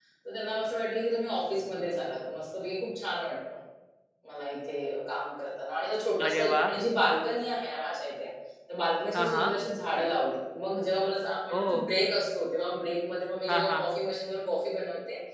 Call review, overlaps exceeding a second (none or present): none